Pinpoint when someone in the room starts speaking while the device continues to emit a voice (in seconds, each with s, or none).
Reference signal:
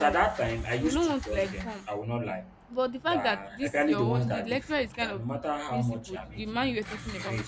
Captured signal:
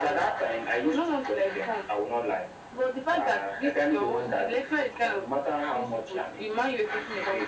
none